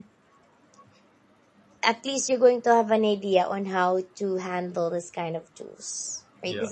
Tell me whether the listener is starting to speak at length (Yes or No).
No